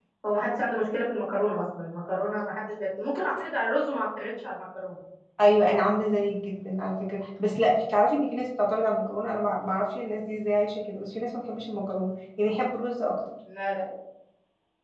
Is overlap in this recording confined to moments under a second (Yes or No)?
Yes